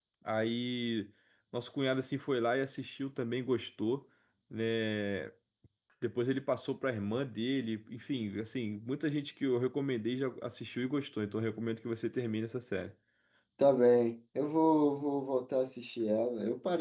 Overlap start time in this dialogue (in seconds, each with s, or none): none